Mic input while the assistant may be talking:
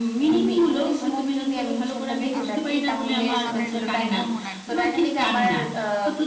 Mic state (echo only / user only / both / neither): both